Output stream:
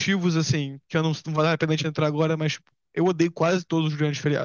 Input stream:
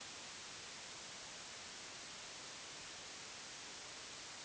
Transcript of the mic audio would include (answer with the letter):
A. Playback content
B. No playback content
B